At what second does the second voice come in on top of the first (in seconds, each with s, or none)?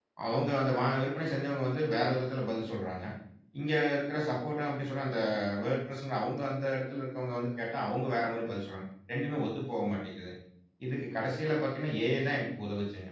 none